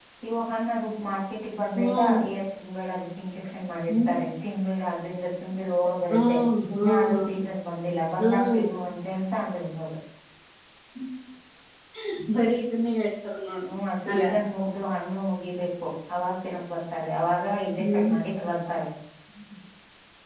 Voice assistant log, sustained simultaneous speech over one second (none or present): none